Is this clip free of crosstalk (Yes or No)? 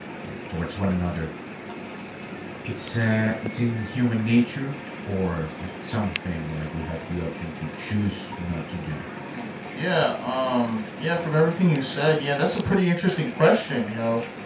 Yes